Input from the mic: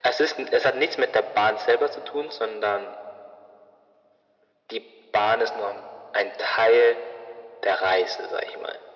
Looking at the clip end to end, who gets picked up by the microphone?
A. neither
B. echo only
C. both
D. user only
B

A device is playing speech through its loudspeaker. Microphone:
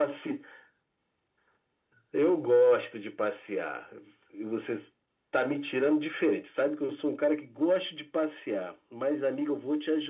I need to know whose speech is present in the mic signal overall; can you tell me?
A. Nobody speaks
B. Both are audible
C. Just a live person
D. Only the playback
D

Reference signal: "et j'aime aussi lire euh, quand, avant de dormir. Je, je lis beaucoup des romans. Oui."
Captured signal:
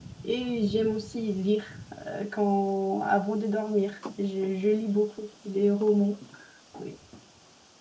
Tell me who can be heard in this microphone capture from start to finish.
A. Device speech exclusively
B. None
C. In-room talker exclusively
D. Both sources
A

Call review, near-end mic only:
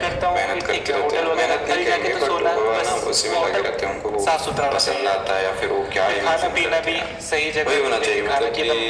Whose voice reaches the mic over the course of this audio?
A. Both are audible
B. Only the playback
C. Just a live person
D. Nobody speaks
B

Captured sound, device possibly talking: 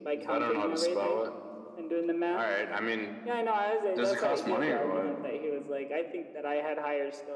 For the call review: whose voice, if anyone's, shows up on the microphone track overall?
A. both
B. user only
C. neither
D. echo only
D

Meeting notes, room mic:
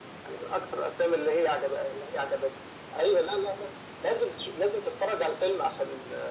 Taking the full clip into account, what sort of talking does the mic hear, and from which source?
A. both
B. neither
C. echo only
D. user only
C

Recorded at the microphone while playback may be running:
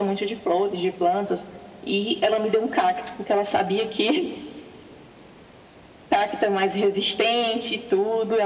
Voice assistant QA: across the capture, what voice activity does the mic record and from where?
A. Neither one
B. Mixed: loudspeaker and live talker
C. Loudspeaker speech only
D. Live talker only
C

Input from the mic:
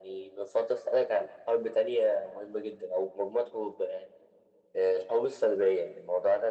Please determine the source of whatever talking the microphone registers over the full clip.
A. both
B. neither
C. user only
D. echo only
D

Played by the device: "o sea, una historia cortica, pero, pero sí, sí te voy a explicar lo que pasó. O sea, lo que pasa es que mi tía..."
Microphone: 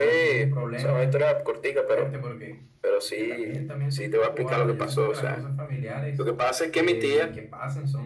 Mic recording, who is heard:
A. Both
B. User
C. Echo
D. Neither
A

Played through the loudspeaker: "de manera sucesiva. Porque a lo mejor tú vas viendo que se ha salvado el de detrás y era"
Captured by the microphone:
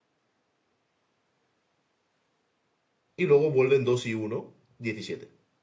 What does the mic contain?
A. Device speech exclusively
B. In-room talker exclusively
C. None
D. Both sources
B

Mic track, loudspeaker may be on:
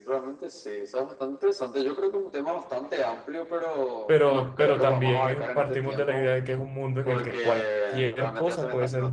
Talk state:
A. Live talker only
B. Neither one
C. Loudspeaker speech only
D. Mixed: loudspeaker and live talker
D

